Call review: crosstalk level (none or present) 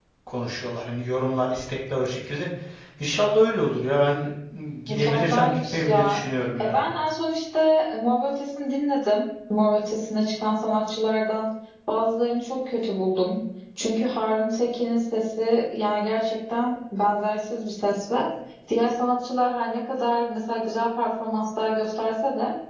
present